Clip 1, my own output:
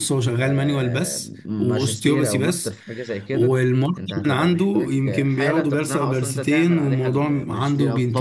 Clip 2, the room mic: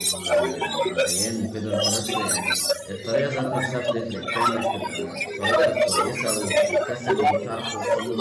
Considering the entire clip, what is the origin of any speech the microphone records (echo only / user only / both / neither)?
both